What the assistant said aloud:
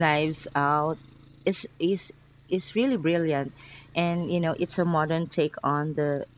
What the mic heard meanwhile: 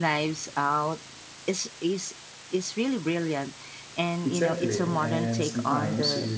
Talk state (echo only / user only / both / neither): both